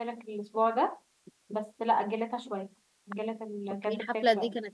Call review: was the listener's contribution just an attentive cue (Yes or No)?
No